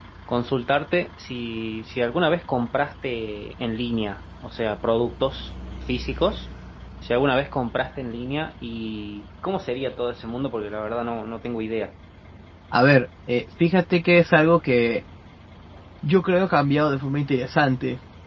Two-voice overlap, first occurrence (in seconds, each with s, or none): none